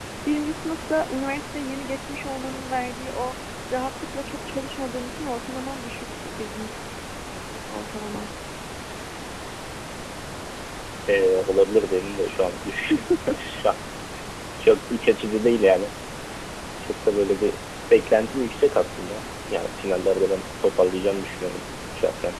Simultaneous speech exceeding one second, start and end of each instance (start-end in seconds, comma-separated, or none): none